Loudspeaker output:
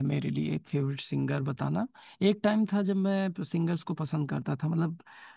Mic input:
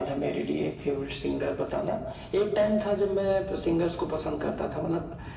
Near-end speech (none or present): none